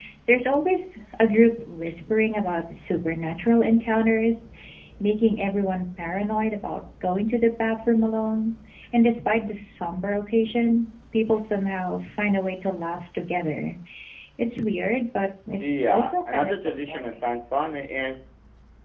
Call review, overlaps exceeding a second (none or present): present